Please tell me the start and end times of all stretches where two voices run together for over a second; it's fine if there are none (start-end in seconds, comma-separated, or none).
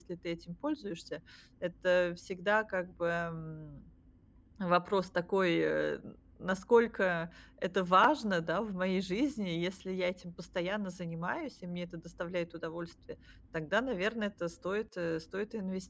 none